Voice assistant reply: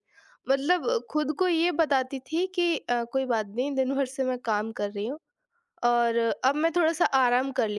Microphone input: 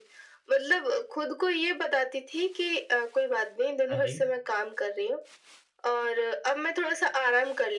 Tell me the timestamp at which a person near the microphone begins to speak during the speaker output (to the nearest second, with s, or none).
4 s